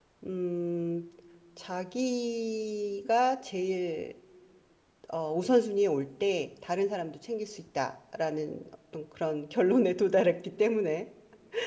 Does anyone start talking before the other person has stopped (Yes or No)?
No